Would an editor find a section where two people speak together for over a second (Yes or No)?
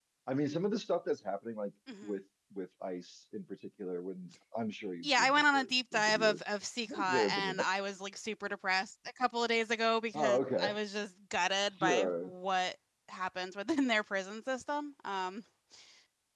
Yes